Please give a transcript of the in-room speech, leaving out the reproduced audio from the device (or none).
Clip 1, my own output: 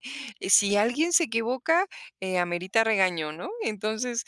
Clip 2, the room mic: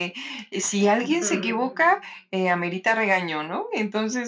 Ujú.